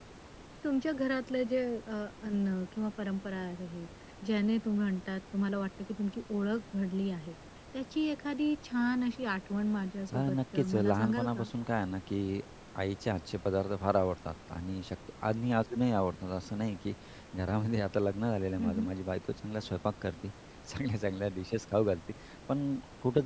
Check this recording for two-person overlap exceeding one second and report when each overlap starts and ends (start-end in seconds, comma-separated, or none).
10.1-11.5